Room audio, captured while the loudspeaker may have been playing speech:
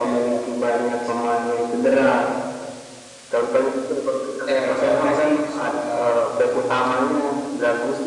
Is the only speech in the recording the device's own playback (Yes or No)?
No